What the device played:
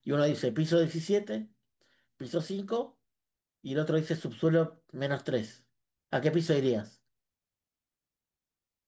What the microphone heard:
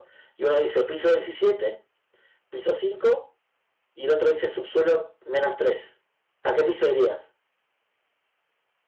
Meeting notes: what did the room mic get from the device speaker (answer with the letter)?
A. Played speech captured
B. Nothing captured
A